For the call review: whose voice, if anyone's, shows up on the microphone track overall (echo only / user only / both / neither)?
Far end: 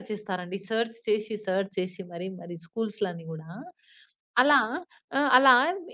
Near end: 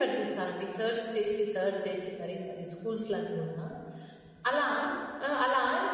echo only